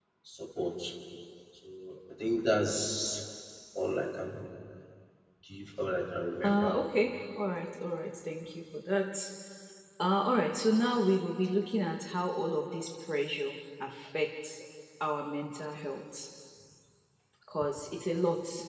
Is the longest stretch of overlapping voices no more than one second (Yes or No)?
Yes